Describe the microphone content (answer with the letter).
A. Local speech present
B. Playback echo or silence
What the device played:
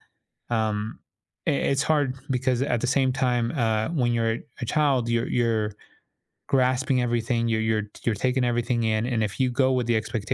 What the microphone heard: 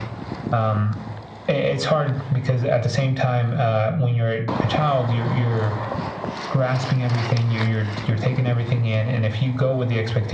B